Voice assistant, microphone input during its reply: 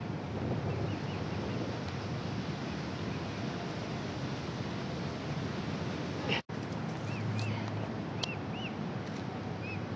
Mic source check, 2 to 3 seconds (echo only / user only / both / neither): neither